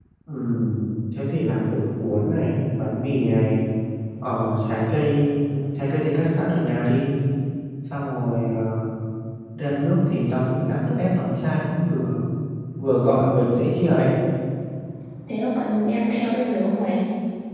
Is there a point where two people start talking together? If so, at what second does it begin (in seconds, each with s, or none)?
none